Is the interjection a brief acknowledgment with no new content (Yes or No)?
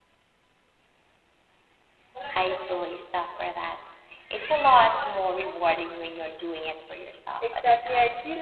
No